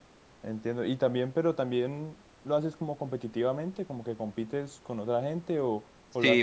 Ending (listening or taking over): taking over